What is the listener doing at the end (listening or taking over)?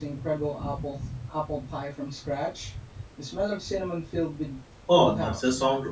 taking over